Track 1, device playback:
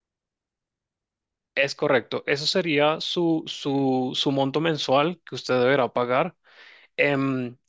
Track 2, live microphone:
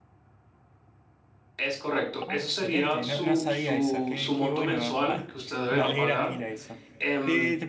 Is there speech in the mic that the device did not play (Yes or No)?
Yes